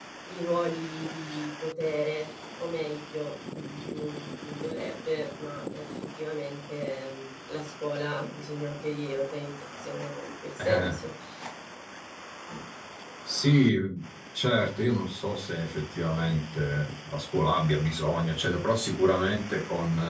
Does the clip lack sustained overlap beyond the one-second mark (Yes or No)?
Yes